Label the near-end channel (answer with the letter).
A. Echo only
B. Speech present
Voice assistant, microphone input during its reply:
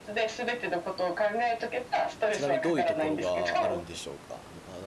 B